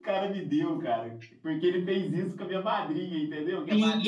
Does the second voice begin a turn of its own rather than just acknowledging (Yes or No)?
Yes